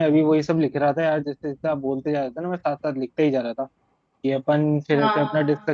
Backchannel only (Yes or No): Yes